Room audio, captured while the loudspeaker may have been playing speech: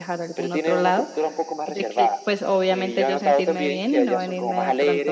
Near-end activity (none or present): present